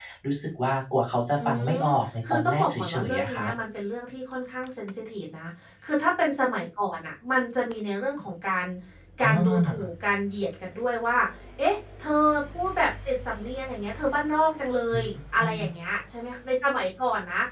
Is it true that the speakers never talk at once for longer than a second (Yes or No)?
No